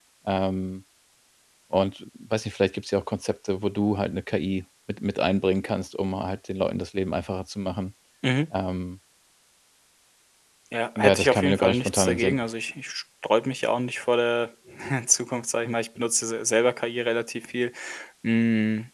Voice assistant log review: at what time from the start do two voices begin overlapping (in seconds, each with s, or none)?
11.0 s